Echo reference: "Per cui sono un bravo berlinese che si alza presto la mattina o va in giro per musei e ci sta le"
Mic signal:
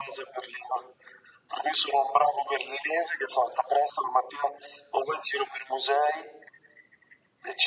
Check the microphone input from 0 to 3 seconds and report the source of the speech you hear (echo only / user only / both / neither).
echo only